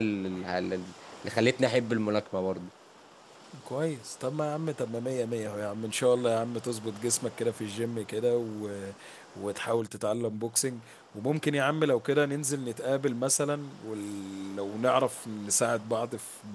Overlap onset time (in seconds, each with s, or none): none